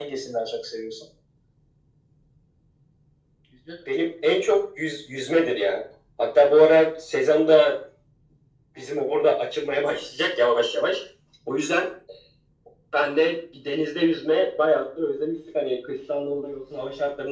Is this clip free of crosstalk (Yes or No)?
Yes